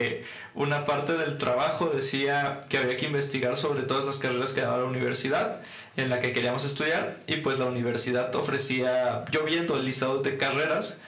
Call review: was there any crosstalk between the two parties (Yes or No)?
No